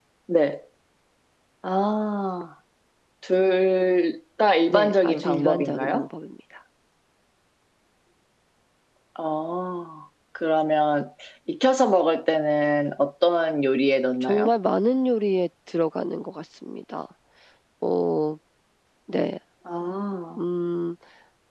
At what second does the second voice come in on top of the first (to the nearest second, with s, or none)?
5 s